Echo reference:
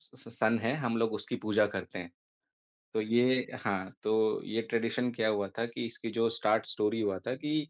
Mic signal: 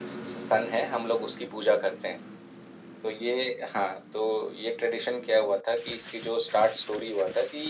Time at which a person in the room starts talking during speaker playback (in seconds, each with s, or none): none